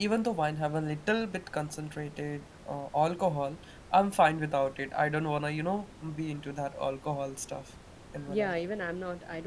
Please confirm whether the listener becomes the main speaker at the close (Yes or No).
Yes